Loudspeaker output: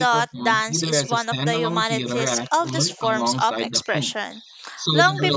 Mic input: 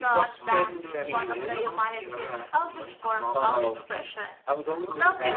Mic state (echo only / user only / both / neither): both